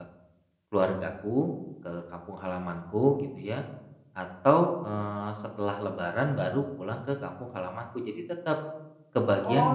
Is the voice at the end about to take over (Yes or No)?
Yes